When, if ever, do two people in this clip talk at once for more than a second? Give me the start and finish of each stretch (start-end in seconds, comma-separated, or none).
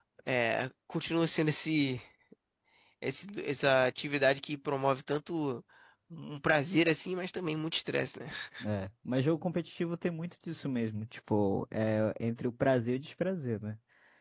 none